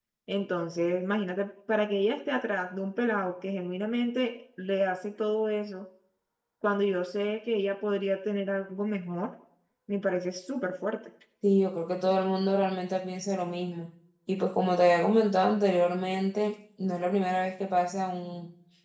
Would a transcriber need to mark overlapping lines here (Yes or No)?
No